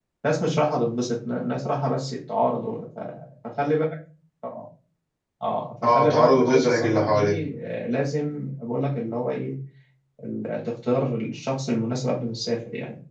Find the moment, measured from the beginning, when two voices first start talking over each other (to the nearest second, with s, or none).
6 s